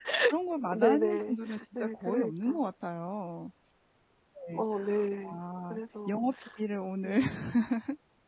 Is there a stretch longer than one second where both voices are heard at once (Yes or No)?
Yes